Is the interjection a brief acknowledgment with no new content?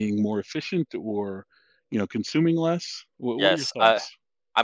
No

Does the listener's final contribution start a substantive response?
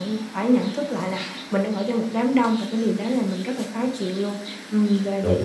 No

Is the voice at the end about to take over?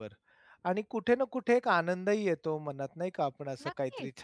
No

